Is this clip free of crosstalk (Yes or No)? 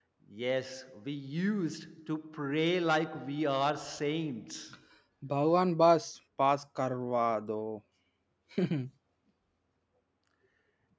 Yes